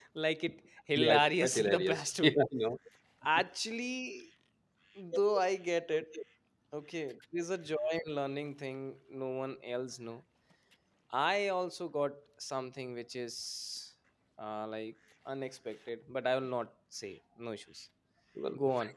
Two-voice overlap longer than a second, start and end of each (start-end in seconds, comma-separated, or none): 1.0-2.4